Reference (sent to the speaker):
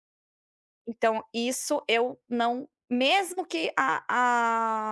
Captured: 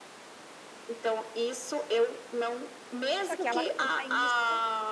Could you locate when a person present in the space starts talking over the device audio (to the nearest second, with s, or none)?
3 s